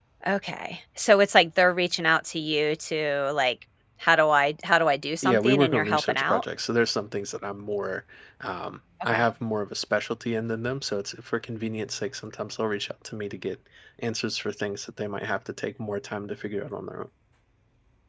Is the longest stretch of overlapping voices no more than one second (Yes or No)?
No